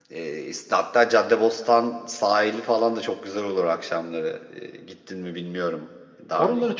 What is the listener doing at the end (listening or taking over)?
taking over